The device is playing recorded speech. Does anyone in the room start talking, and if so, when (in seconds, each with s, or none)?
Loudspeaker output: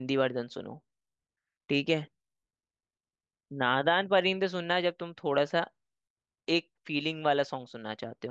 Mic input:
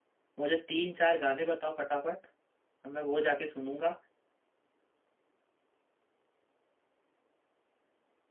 0.4 s